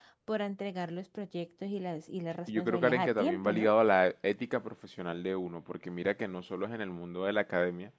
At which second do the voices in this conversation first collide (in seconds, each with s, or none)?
2.5 s